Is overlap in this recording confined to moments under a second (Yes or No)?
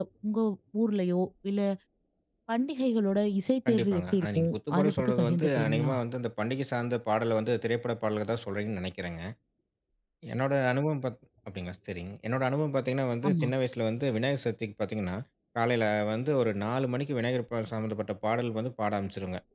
No